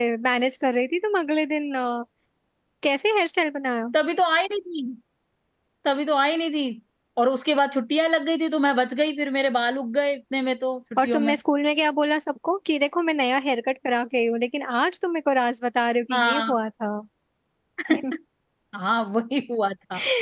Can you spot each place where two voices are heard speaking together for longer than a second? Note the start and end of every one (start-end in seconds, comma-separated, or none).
none